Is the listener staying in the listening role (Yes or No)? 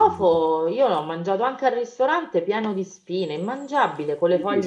No